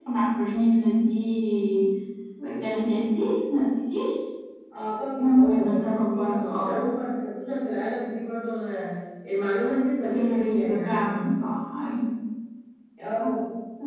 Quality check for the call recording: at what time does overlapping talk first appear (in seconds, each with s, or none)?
5.2 s